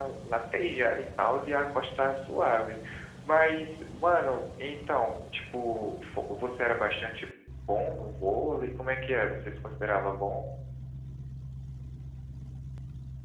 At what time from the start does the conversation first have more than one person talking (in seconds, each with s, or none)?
none